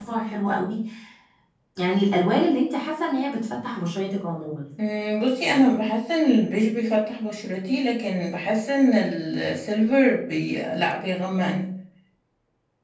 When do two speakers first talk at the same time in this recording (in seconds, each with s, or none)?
none